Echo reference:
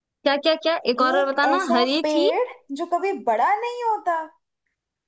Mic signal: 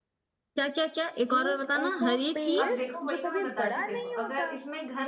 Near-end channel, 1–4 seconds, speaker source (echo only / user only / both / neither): both